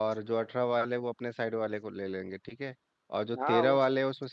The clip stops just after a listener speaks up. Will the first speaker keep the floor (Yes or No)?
Yes